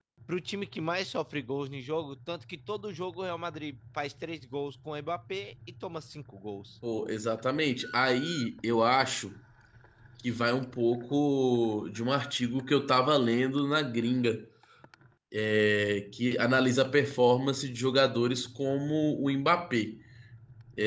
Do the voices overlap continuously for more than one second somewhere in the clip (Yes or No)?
No